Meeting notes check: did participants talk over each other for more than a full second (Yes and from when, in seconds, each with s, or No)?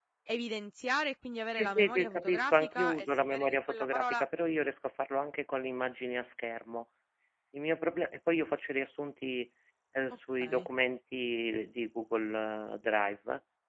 Yes, from 1.5 s